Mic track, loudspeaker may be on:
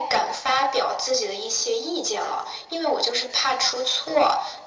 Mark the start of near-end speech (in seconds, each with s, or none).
none